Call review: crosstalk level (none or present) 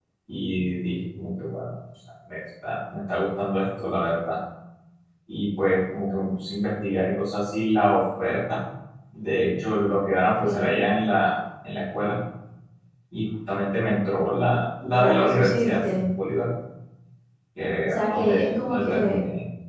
present